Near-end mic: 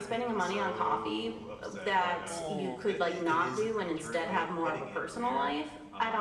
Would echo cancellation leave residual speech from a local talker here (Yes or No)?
Yes